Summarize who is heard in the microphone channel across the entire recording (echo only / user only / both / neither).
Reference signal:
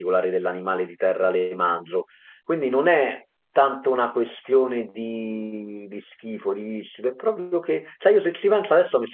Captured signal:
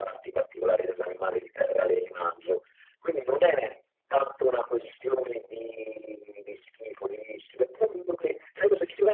echo only